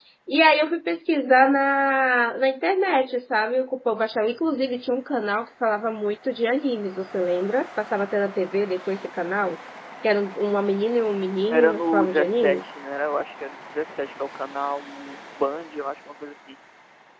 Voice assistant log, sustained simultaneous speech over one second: present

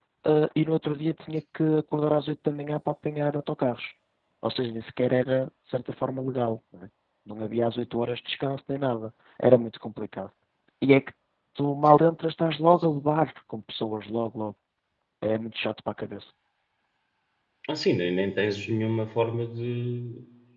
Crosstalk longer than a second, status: none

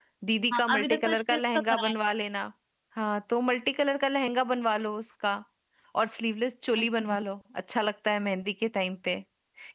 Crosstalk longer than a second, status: present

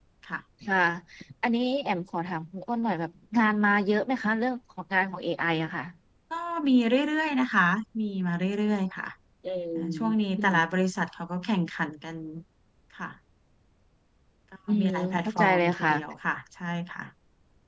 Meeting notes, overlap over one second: present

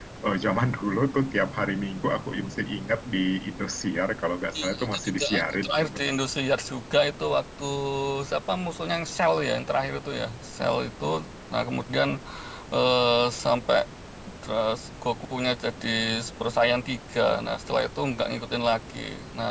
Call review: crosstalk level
present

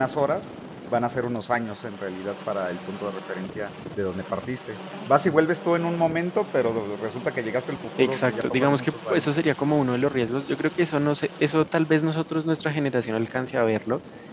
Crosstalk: present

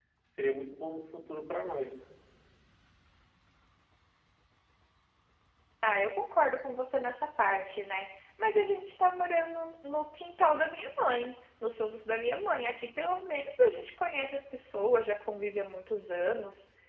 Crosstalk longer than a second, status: none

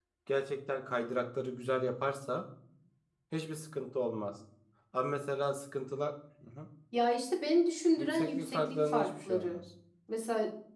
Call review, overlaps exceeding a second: present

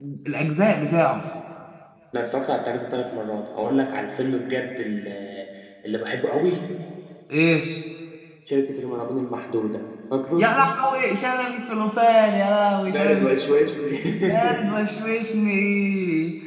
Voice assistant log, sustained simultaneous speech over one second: none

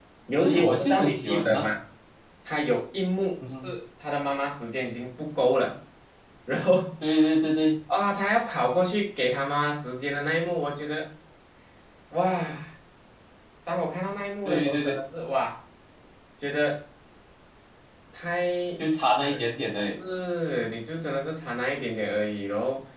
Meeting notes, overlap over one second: present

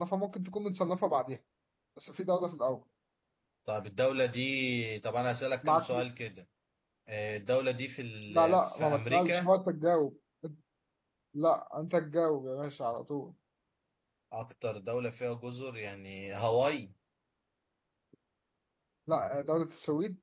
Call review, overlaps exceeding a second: present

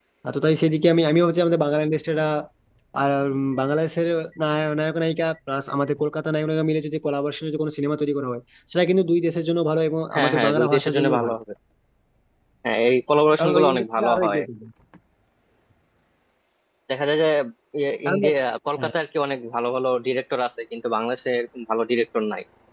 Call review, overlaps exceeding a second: present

